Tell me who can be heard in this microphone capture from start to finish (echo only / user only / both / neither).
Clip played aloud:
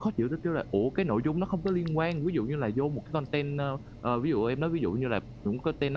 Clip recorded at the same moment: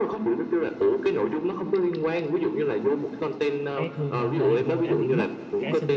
both